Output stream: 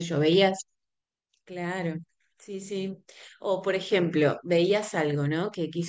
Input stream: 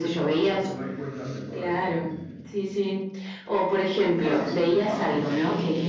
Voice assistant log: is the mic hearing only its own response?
No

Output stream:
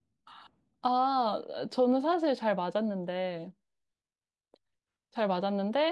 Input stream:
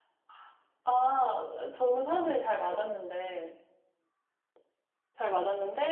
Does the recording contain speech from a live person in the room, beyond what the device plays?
No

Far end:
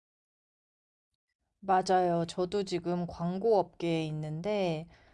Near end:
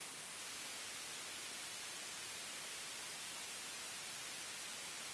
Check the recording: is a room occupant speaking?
No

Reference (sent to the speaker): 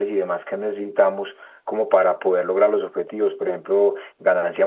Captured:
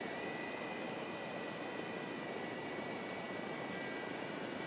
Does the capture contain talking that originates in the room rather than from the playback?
No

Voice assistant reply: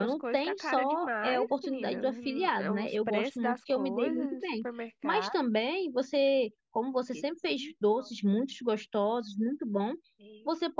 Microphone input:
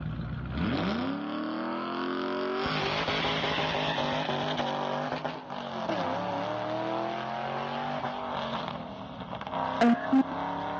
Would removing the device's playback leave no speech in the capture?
No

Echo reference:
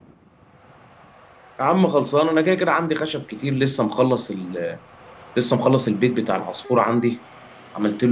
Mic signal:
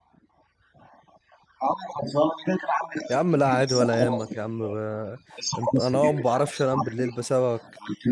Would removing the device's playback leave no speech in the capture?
No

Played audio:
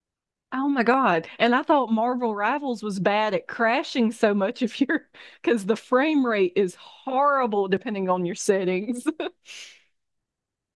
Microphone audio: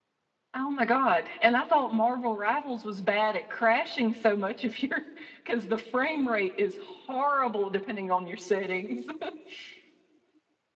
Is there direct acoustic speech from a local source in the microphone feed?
No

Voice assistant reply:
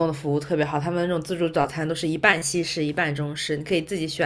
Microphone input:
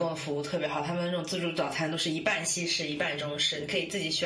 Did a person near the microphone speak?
No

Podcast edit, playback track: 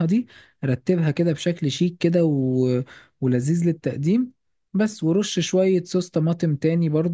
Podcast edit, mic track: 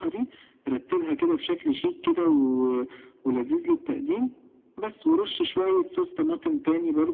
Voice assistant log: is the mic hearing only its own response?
Yes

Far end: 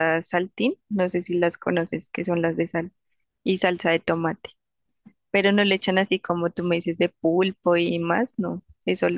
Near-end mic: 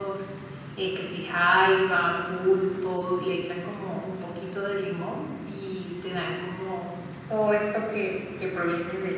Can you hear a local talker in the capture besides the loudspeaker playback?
Yes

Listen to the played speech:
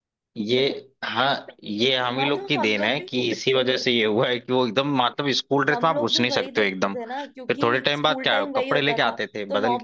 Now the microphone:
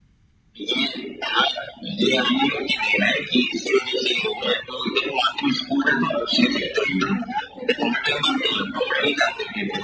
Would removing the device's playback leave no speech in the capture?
Yes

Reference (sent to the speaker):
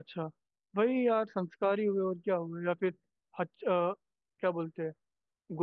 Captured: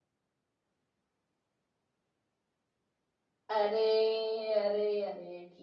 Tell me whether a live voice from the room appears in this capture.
Yes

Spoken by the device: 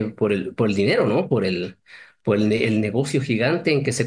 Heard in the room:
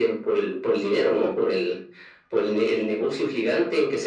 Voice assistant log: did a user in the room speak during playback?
No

